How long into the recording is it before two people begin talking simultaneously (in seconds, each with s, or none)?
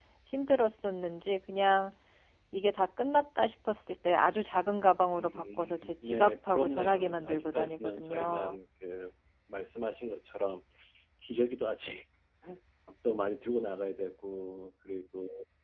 5.2 s